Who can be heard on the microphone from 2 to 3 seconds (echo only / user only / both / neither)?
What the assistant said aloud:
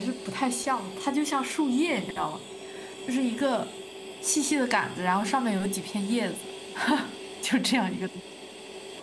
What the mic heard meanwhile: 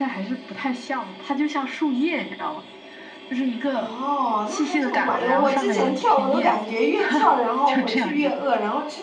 echo only